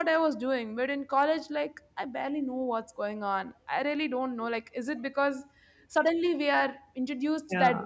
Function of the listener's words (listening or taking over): listening